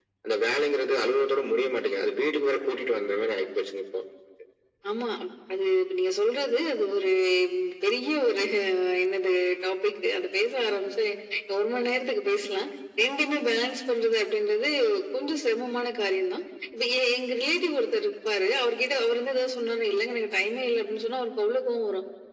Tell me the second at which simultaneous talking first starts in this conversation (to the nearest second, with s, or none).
none